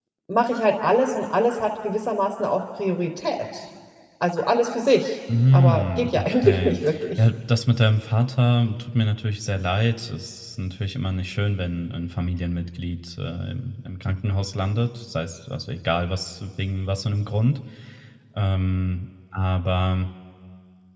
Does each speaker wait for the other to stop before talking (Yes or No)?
No